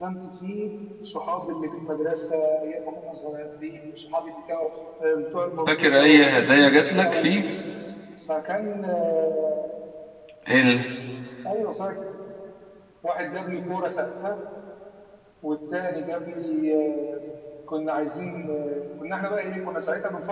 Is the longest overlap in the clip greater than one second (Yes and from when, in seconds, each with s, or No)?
Yes, from 5.7 s